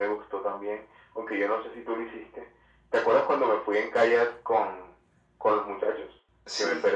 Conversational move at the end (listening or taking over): taking over